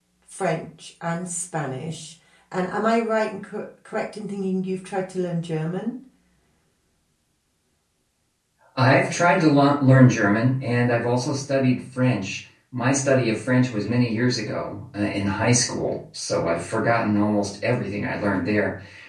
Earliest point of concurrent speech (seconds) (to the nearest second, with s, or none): none